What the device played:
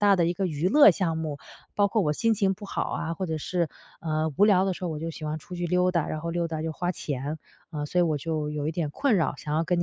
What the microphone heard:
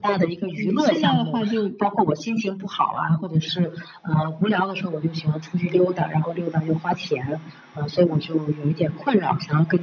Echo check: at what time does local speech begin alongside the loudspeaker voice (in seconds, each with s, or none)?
0.5 s